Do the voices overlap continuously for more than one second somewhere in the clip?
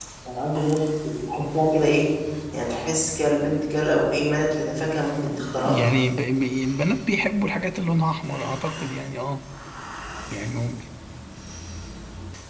No

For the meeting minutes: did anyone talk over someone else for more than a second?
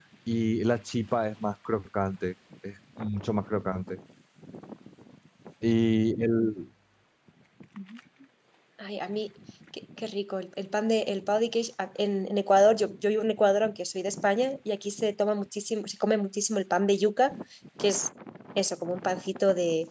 No

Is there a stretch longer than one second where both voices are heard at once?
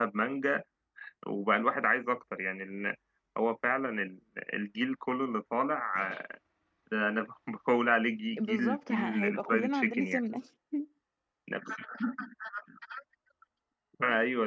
Yes, from 8.4 s

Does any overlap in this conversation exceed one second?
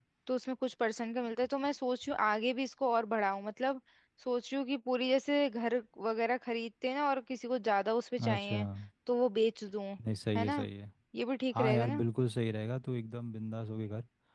No

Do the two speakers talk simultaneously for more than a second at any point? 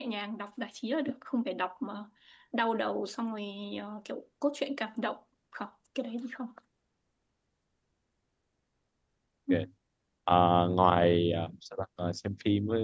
No

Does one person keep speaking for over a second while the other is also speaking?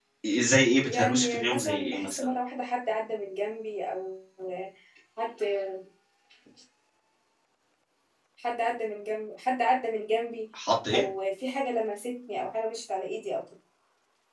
Yes, from 0.8 s

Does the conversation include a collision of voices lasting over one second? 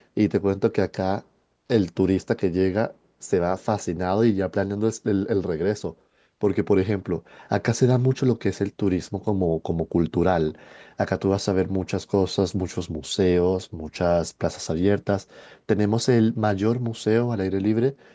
No

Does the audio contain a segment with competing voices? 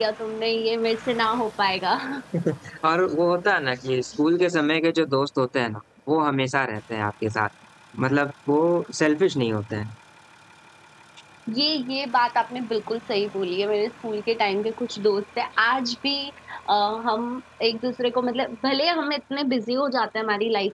No

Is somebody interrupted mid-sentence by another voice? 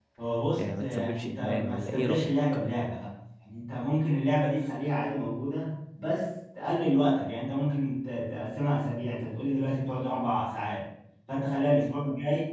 Yes, from 0.6 s

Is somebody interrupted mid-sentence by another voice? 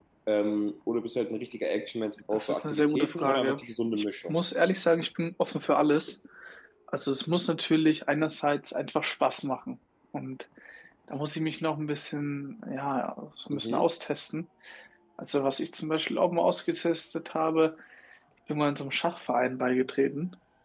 Yes, from 2.3 s

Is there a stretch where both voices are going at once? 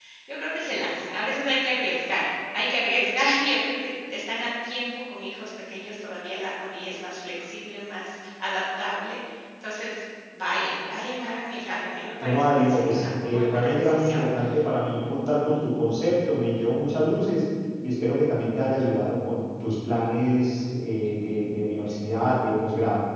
Yes, from 12.2 s

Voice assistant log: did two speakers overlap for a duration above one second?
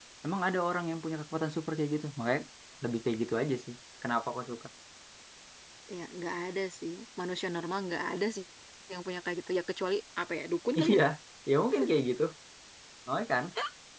No

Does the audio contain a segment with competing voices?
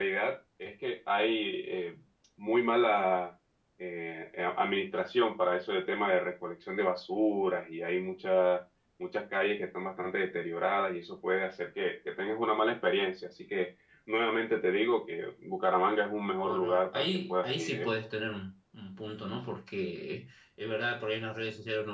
Yes, from 16.4 s

